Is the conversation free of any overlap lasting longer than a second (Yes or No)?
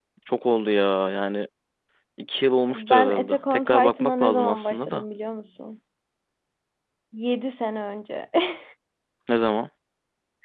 No